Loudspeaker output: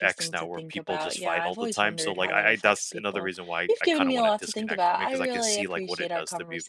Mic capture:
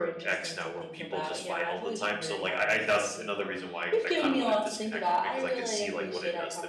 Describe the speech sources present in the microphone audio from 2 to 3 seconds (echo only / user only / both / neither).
echo only